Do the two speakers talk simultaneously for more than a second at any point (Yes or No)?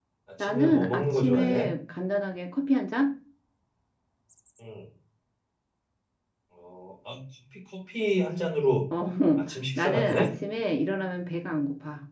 Yes